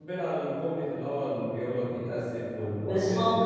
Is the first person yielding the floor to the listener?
Yes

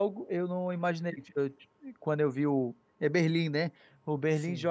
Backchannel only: Yes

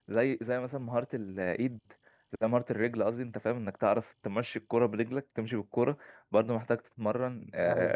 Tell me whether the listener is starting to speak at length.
No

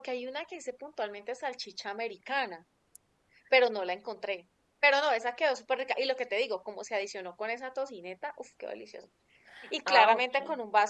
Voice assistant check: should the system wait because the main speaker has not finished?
Yes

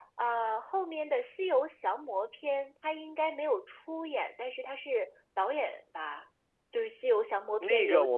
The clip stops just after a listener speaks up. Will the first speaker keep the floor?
No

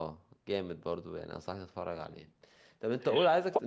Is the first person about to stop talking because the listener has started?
No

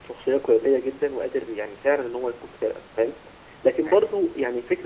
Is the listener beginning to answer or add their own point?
No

